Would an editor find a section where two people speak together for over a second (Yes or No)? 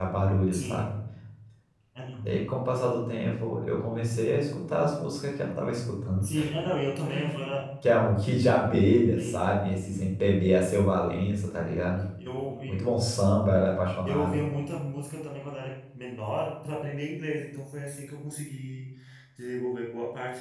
No